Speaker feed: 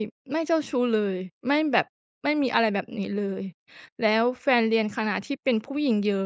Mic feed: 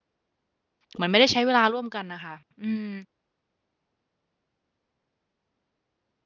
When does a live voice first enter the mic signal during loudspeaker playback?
0.9 s

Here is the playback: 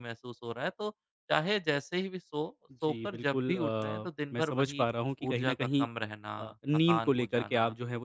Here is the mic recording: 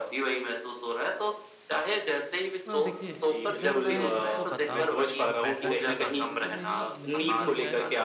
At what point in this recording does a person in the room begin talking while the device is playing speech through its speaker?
2.7 s

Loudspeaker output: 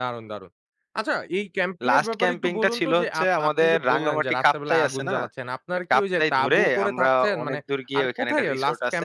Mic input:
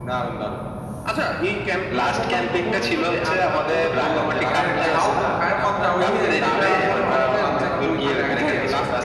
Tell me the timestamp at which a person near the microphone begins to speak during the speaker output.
3.9 s

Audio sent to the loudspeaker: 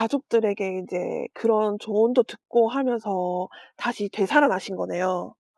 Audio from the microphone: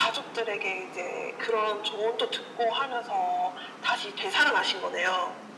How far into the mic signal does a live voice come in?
none

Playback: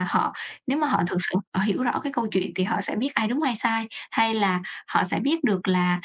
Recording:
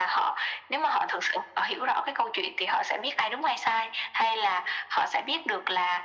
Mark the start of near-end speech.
none

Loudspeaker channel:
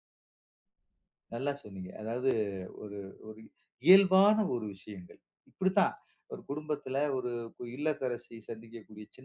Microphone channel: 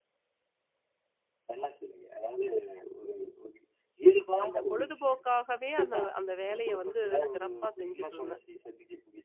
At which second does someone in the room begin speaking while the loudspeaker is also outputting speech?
4.4 s

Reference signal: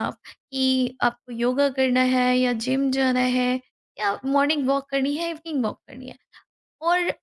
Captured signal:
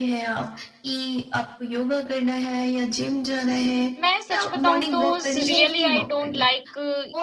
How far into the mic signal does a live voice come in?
4.0 s

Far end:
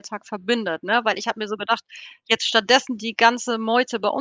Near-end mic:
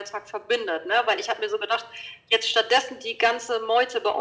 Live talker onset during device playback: none

